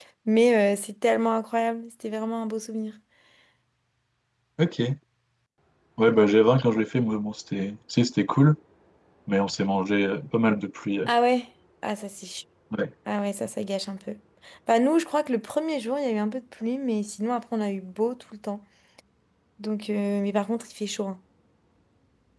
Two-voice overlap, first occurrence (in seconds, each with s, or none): none